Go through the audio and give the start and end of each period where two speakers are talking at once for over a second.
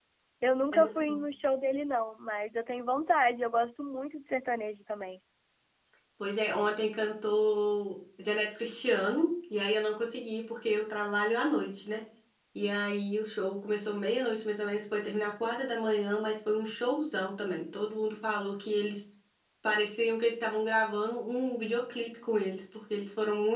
none

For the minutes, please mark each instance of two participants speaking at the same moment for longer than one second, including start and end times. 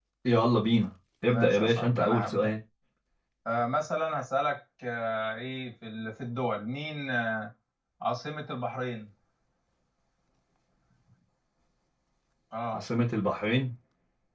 1.3-2.5

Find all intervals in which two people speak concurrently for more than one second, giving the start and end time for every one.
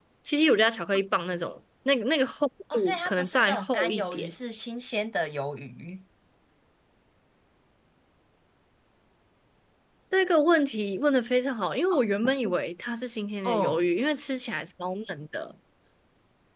2.7-4.3

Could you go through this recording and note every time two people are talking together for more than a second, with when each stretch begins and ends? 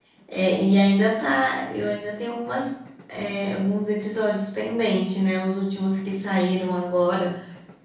none

